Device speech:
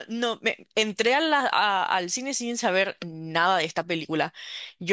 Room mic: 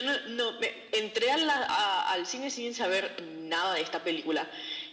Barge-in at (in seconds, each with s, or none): none